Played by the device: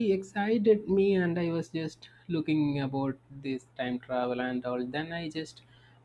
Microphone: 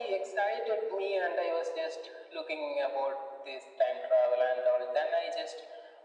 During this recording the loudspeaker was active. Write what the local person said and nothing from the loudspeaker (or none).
none